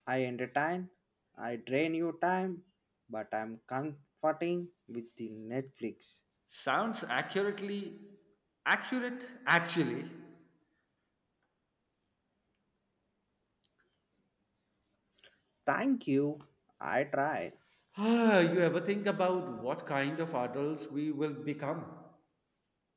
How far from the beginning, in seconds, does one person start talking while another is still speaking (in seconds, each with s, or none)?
none